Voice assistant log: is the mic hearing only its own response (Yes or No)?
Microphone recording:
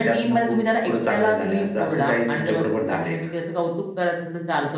Yes